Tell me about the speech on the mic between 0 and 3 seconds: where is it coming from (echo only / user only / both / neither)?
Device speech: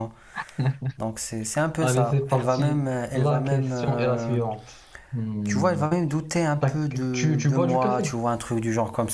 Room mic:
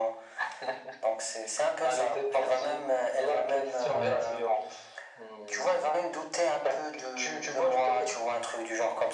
echo only